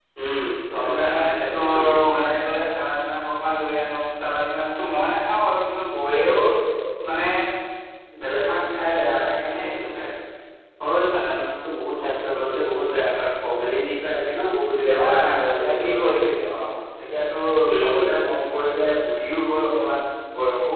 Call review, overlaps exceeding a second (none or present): present